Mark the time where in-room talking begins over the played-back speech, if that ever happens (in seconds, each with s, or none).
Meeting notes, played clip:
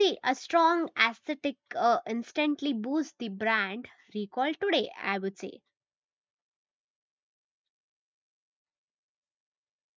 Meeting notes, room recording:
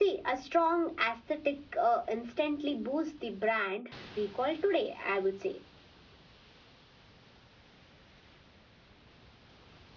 none